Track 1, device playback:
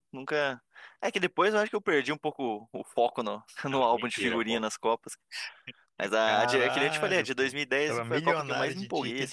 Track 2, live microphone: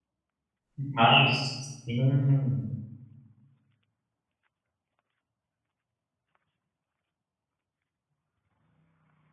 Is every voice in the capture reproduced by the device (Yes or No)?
No